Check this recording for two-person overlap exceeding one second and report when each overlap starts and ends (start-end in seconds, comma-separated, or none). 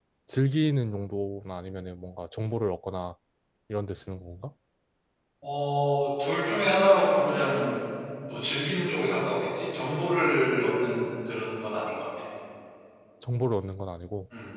none